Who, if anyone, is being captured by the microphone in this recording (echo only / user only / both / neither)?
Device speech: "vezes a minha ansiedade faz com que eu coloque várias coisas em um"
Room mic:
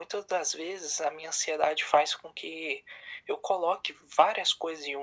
echo only